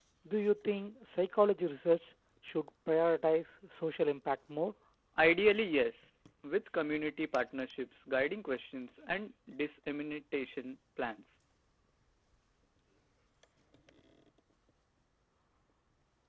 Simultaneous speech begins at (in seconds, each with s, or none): none